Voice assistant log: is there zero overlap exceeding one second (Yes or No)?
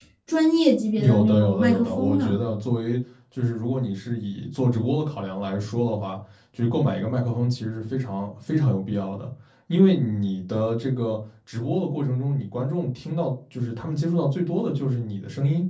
No